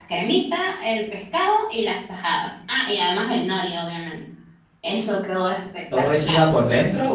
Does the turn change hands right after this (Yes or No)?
Yes